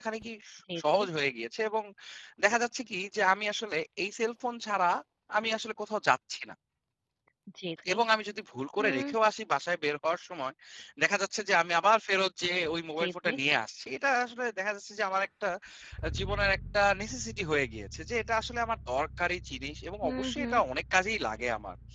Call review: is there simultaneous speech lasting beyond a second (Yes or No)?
No